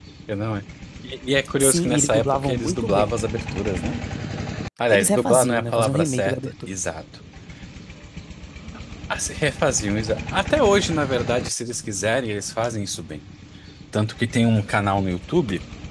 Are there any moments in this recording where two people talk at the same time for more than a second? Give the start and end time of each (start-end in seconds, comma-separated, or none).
1.6-3.1, 4.9-6.5